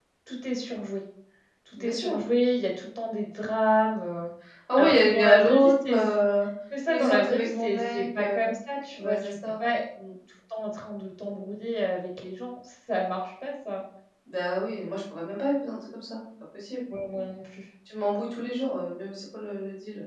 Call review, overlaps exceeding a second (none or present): present